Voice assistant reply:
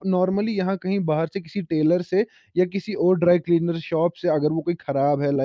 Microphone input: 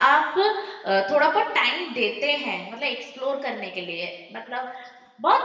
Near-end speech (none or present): present